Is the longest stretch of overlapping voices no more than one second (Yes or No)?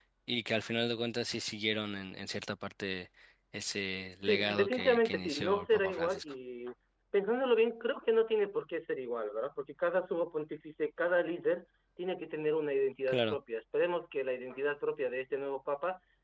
No